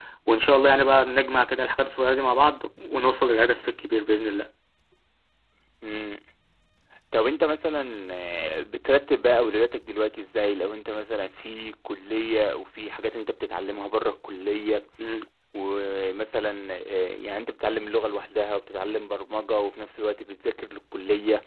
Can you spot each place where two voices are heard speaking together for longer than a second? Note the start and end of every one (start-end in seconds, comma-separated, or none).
none